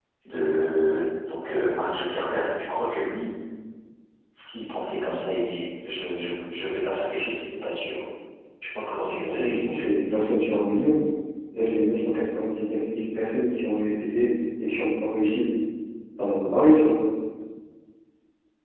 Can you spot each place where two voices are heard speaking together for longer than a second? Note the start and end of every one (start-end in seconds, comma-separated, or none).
none